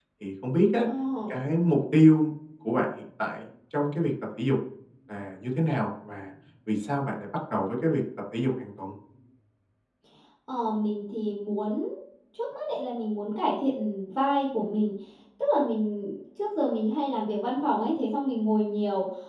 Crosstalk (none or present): none